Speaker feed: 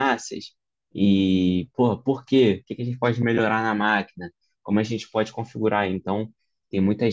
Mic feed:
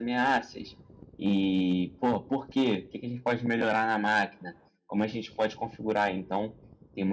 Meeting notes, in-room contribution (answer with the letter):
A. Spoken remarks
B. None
B